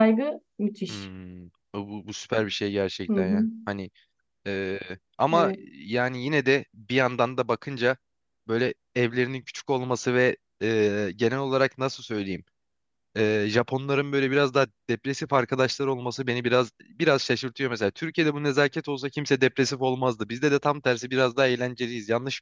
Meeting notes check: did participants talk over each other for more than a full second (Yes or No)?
No